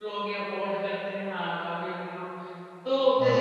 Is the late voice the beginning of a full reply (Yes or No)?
No